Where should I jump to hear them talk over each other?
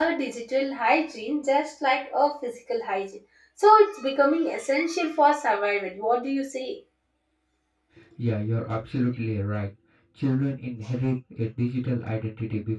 none

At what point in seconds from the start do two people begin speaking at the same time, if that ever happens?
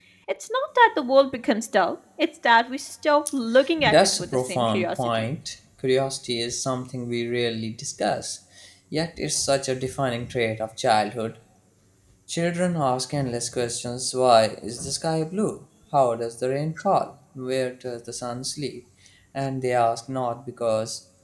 3.8 s

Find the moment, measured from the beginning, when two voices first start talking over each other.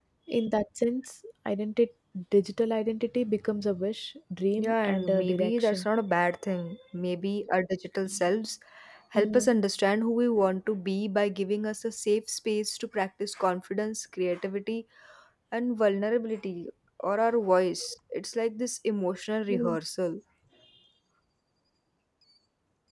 4.6 s

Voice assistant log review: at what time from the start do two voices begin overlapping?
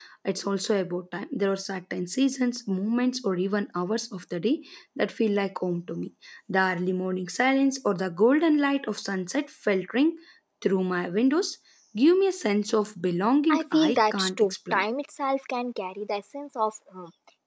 13.5 s

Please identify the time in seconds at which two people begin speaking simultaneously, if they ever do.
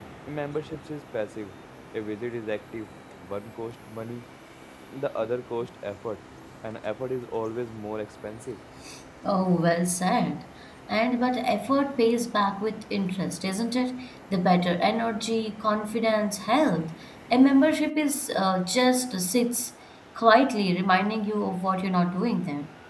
none

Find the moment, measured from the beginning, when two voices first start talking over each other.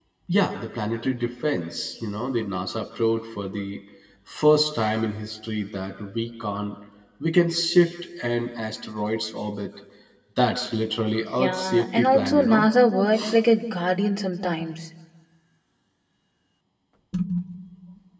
11.4 s

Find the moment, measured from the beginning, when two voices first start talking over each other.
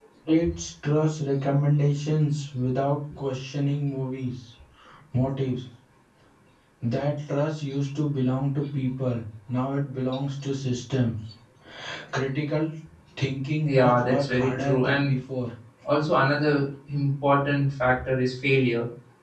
13.7 s

